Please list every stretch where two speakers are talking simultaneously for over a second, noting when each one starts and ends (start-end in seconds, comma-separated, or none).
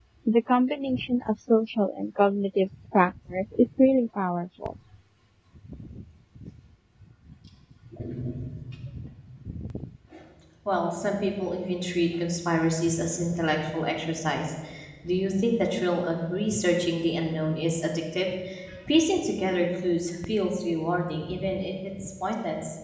none